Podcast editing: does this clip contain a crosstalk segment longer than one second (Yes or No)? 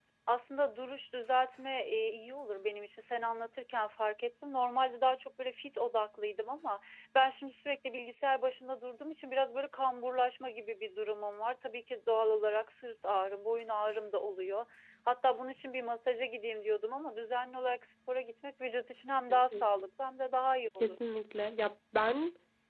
No